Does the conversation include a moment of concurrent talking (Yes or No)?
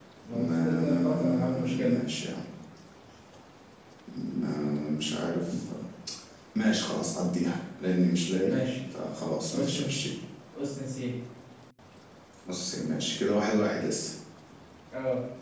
Yes